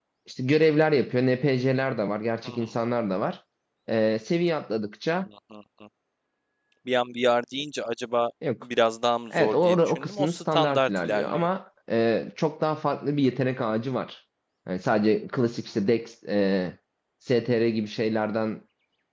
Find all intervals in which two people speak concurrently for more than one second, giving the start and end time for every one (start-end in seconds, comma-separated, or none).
9.3-11.5